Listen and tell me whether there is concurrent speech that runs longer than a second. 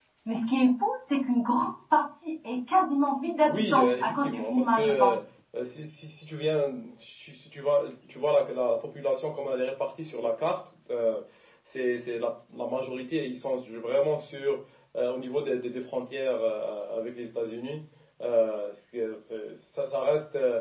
Yes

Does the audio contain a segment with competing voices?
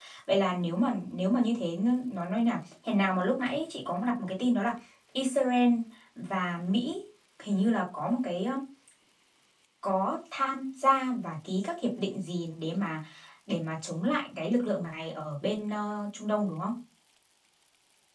No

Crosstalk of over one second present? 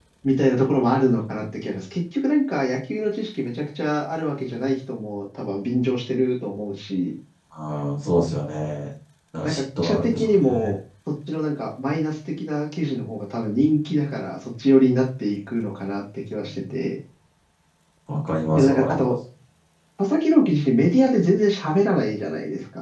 Yes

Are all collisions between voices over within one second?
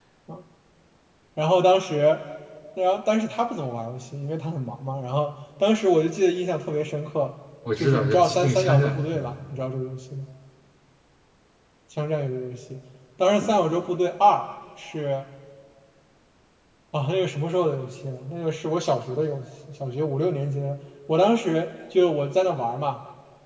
No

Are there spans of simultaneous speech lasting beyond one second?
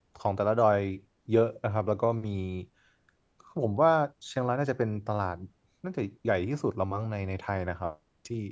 No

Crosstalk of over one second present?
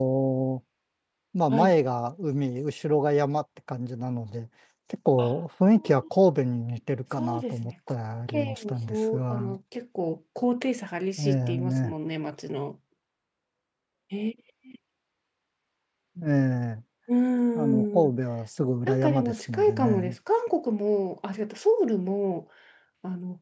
Yes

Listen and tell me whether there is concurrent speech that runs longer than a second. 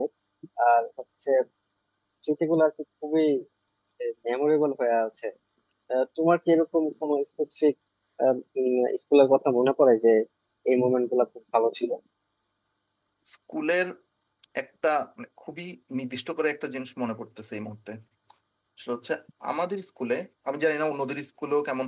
No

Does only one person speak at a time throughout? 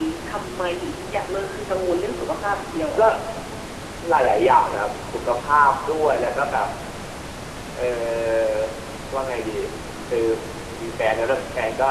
Yes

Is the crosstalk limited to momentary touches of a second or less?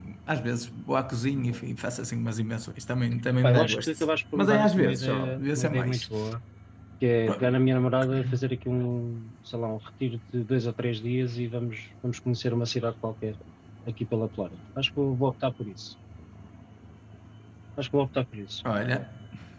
No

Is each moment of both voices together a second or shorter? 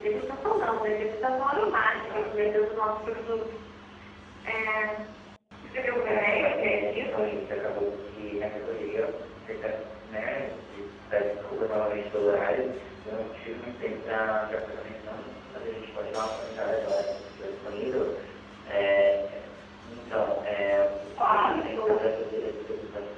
No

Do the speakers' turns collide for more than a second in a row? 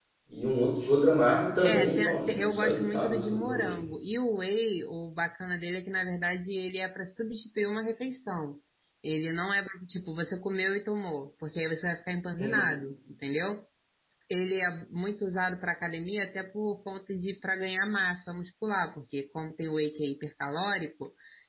Yes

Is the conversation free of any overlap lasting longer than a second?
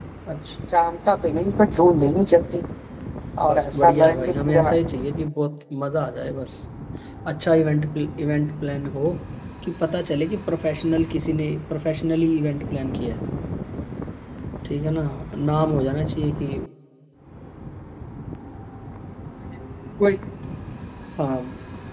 No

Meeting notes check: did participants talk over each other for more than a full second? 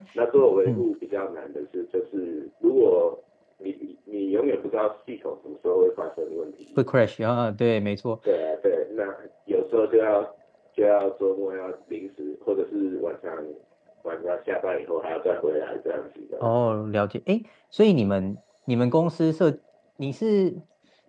No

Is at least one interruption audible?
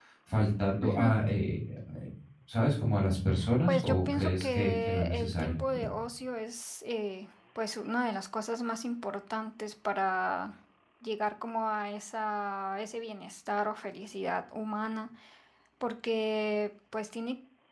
Yes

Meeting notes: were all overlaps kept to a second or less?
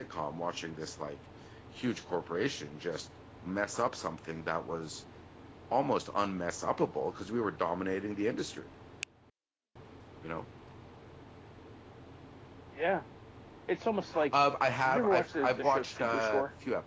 No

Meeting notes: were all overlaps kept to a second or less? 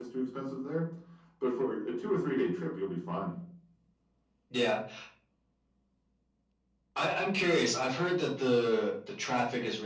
Yes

